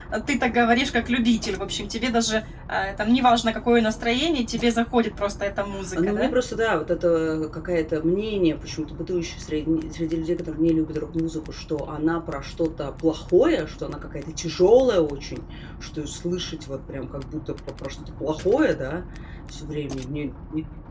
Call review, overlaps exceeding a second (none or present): none